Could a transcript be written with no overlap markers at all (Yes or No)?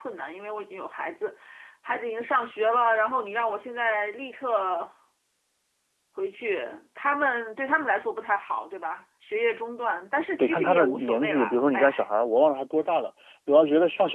No